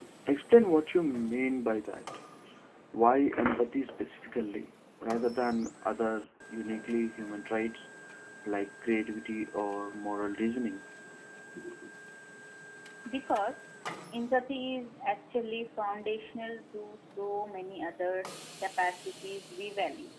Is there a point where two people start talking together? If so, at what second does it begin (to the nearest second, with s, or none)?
none